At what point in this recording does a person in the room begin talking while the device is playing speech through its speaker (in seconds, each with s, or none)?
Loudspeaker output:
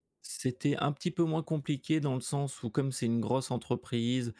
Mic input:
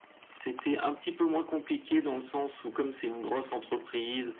none